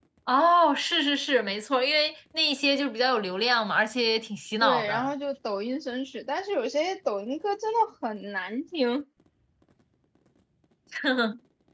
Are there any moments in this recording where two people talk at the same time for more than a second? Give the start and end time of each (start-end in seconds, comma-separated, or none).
none